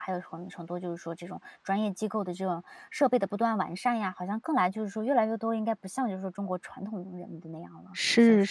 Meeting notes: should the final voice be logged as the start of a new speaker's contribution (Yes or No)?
Yes